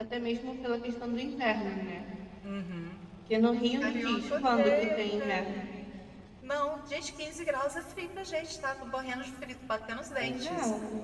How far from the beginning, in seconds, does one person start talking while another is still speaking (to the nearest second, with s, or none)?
4 s